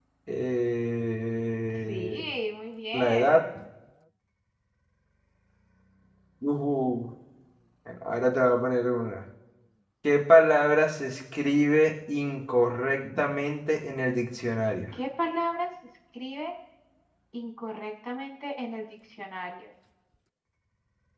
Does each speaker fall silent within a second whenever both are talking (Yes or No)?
Yes